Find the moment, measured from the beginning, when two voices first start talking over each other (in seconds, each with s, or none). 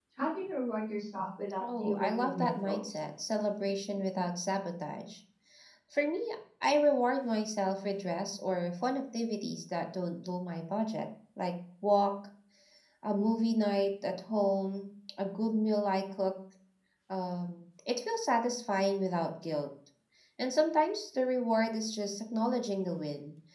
1.6 s